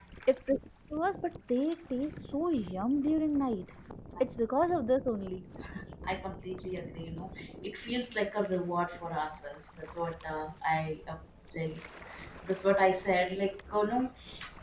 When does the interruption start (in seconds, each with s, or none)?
none